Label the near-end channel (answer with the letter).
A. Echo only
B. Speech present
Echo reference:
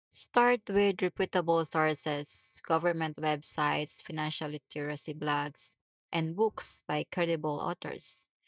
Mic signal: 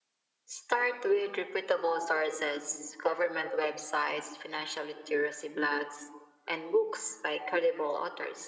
A